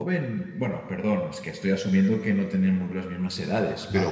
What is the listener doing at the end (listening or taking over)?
listening